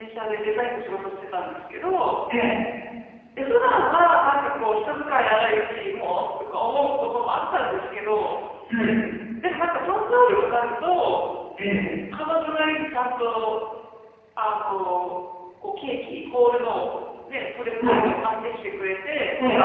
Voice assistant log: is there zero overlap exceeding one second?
Yes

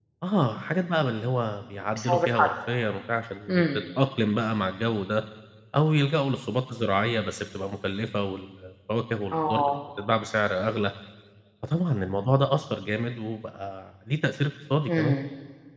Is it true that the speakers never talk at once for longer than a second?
Yes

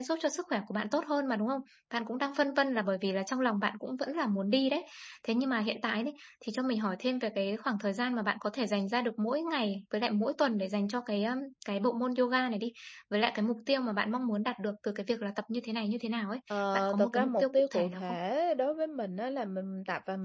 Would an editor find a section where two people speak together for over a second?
Yes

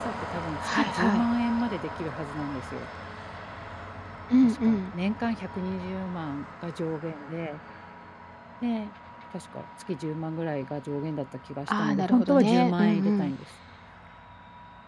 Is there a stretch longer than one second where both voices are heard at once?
Yes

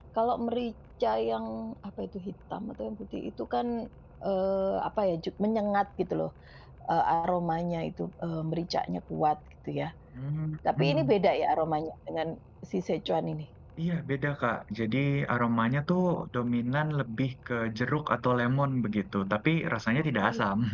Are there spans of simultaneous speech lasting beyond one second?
No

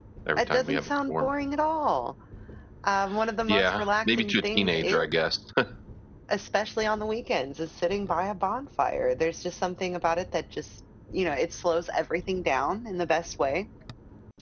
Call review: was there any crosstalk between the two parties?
Yes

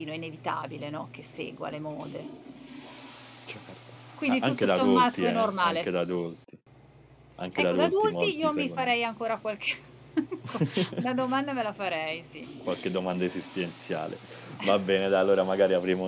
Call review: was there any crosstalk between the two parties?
Yes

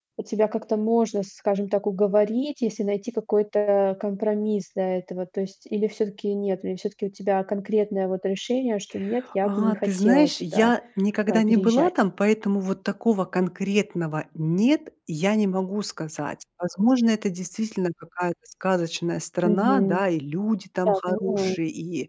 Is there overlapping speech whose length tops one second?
Yes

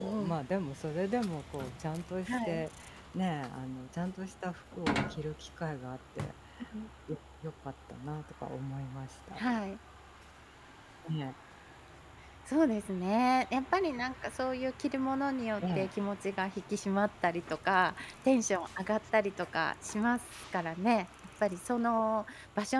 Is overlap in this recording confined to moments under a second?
Yes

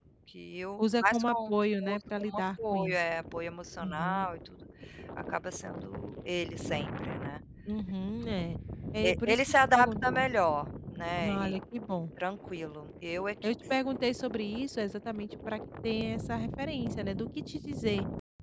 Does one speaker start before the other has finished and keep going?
Yes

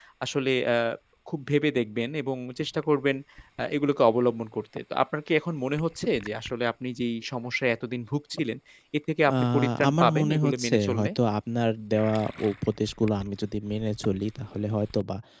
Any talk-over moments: Yes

